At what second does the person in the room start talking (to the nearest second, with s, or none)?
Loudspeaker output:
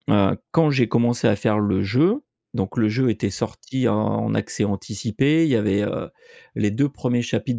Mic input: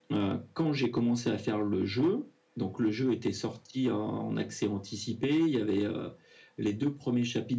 none